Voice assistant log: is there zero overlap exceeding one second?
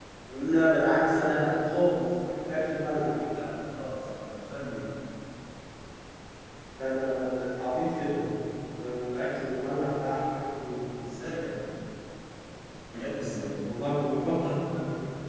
Yes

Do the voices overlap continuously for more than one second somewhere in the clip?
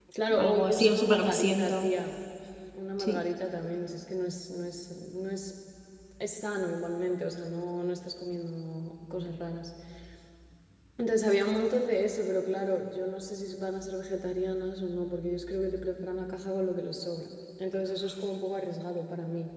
Yes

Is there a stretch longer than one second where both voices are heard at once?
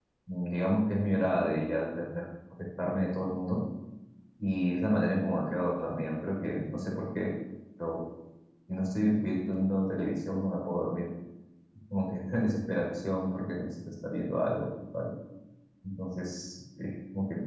No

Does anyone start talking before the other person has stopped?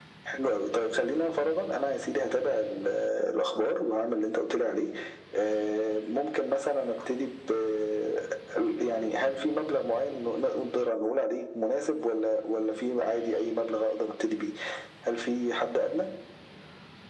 No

